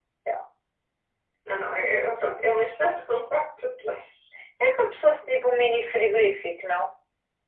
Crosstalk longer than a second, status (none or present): none